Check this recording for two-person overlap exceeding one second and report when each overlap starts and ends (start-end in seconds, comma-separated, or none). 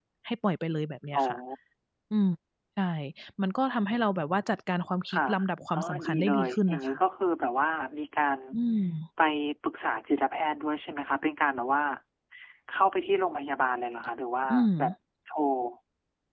5.7-7.0